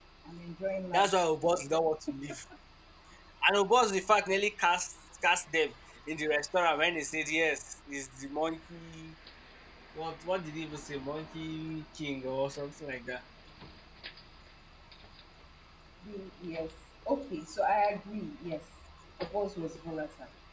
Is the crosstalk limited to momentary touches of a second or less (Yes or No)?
Yes